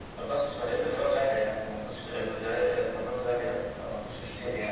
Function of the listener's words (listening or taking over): listening